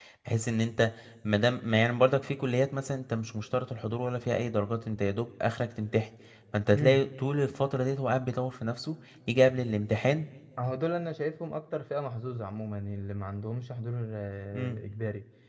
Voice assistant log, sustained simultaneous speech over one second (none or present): none